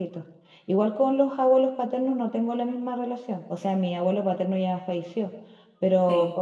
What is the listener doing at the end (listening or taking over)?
listening